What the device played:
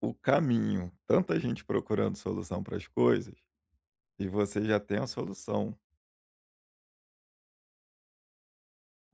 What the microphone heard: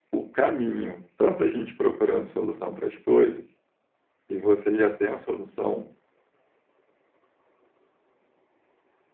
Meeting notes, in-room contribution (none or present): none